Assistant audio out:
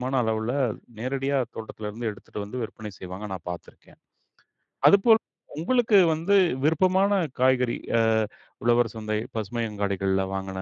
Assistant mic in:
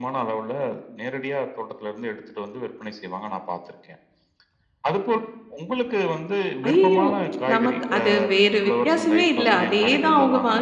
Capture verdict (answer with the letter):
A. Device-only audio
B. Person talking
B